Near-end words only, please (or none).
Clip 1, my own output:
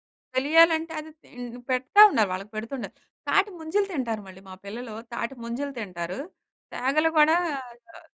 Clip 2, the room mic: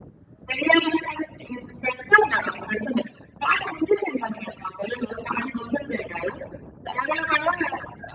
none